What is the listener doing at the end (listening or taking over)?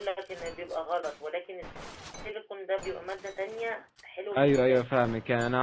taking over